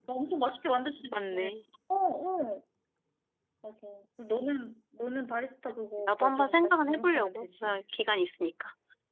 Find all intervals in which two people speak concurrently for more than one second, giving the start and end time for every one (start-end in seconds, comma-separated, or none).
6.1-7.8